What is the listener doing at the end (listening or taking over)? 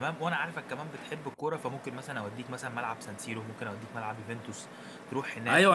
taking over